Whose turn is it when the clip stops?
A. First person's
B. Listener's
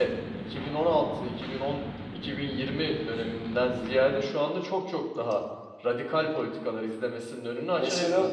B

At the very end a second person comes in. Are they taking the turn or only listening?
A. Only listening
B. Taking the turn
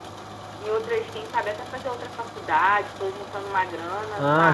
B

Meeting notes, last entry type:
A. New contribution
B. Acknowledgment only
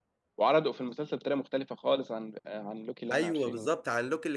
A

